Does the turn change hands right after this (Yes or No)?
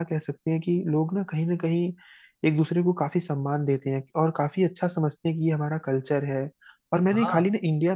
No